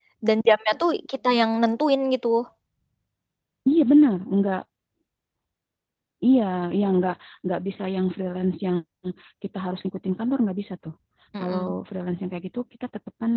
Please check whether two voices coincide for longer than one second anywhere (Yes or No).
No